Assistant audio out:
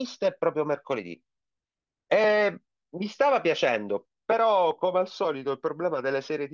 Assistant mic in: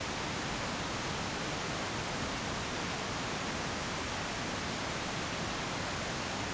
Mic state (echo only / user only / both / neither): neither